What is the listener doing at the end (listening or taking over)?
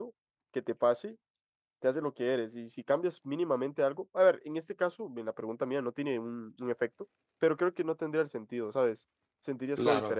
taking over